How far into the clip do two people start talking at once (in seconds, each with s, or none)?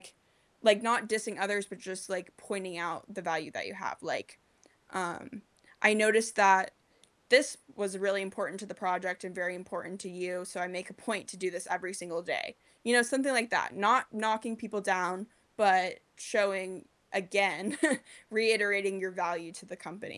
none